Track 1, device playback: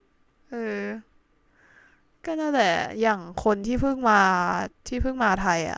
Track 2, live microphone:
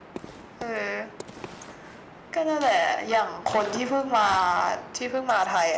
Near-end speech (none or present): none